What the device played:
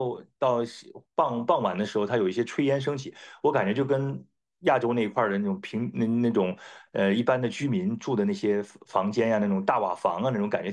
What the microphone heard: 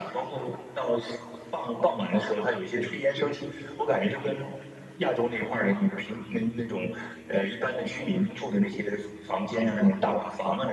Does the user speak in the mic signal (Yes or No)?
No